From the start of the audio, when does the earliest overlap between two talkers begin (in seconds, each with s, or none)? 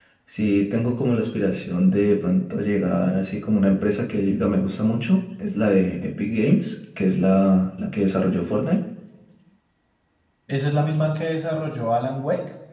none